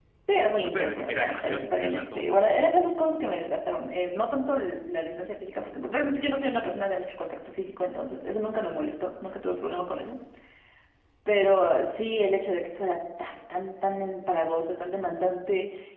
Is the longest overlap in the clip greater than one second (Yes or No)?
Yes